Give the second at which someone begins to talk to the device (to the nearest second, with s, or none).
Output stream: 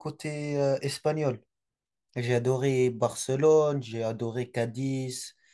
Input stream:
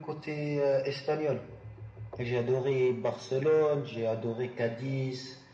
none